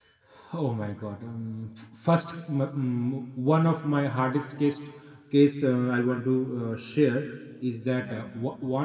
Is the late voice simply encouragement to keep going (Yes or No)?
Yes